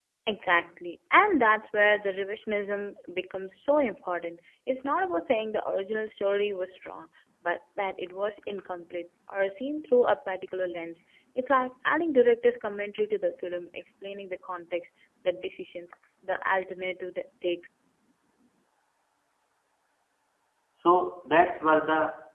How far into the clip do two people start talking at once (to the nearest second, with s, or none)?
none